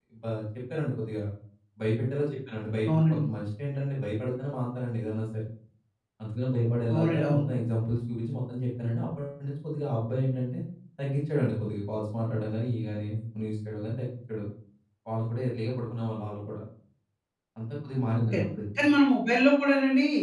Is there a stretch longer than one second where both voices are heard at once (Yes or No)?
No